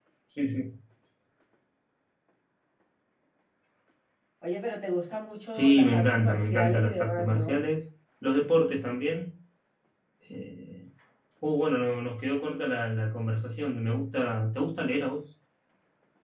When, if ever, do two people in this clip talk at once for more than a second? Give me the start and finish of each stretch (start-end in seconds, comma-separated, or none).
5.5-7.6